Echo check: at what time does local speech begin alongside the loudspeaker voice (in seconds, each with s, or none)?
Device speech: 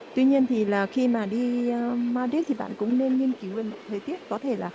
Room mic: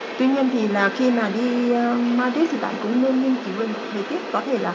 none